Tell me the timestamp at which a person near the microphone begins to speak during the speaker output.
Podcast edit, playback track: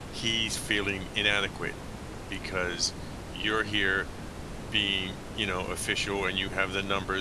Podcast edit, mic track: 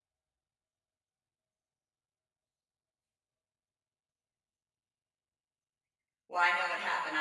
6.3 s

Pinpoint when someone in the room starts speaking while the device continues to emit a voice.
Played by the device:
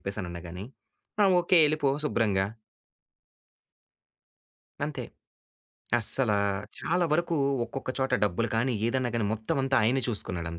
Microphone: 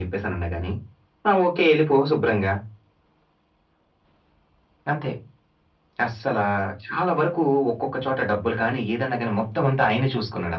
none

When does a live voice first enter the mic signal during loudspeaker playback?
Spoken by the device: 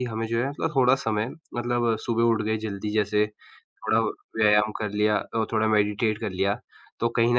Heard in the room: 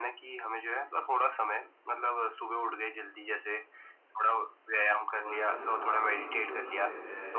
5.2 s

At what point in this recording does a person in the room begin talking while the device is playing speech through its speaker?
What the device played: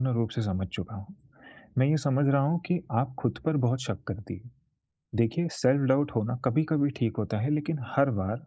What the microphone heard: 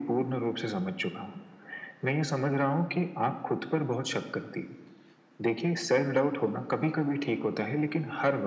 none

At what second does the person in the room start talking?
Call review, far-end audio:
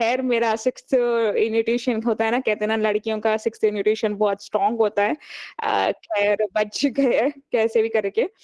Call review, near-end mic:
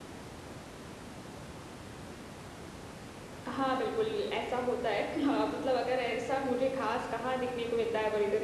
3.5 s

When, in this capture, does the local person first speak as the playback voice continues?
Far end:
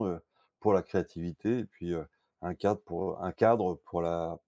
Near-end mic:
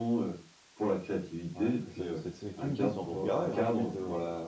1.5 s

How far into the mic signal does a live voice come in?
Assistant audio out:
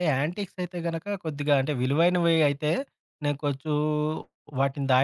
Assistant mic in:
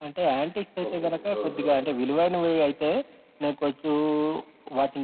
0.9 s

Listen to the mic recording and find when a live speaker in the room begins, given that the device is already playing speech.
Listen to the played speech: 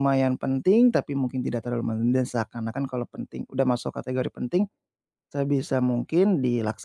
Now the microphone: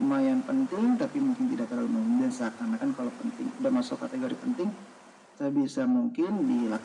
none

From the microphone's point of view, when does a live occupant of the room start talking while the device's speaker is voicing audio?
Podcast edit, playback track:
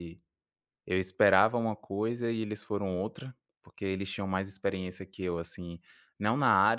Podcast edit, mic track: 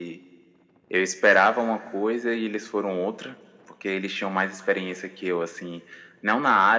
none

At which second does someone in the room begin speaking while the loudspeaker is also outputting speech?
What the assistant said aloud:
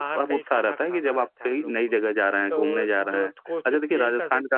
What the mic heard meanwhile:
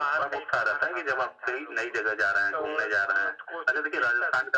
none

